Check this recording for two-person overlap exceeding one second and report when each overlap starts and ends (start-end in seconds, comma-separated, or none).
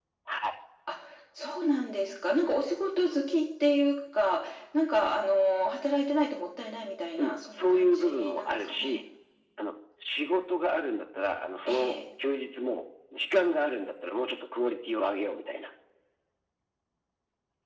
7.2-9.0